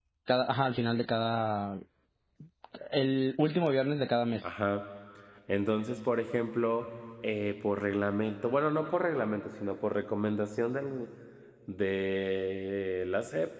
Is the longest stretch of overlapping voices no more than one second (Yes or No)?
Yes